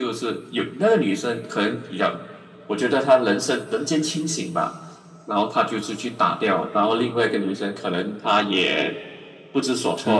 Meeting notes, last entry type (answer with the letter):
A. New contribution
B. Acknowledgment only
B